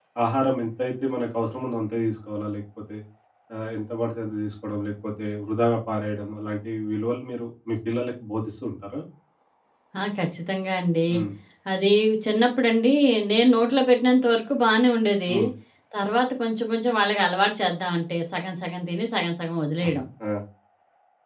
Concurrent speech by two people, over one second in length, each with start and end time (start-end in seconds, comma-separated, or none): none